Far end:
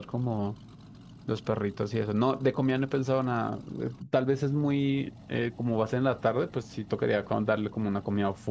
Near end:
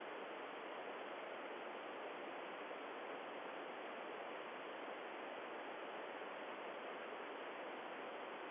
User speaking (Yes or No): No